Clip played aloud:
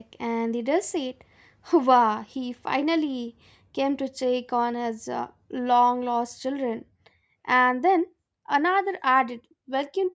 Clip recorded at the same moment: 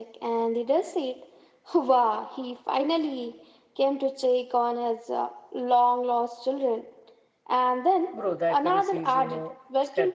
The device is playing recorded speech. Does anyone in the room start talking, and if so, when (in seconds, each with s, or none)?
8.1 s